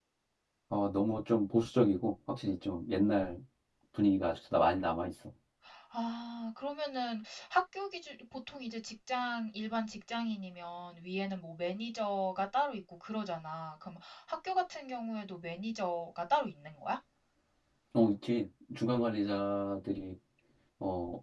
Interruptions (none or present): none